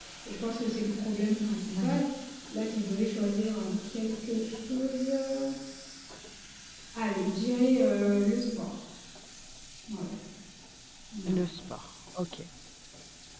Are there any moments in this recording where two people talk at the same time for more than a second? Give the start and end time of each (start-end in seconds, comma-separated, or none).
none